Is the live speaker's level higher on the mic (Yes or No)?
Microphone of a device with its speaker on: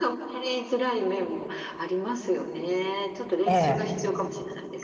Yes